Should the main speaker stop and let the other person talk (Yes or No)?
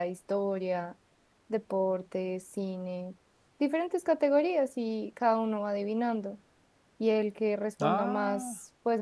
No